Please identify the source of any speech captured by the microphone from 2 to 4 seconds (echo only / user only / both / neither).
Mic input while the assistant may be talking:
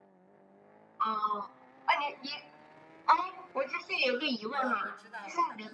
echo only